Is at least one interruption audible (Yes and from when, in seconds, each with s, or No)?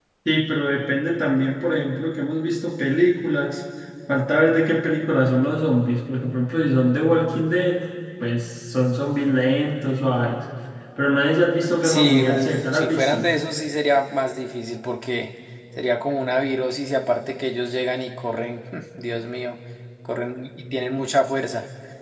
Yes, from 11.8 s